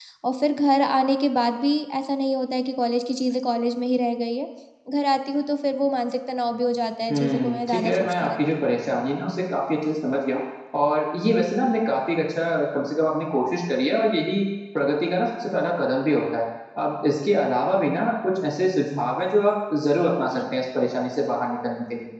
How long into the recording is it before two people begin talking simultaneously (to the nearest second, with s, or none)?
7 s